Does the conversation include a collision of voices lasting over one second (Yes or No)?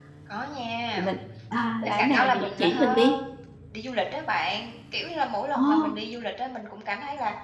Yes